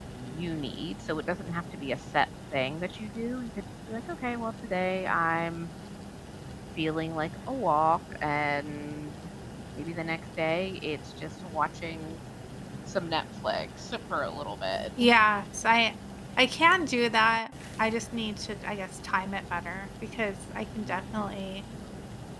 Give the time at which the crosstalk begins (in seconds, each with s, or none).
none